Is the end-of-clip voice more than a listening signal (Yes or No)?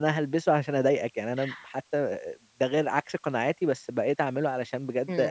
Yes